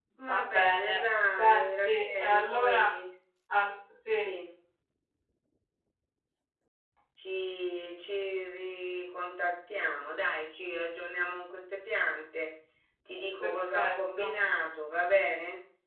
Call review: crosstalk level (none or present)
present